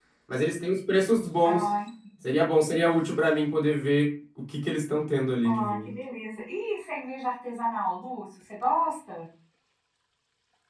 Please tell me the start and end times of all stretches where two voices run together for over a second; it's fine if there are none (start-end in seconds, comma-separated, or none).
none